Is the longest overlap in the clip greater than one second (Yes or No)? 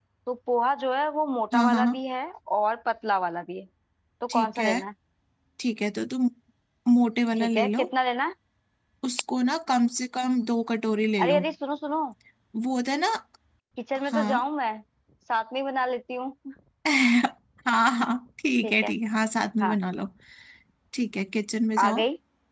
No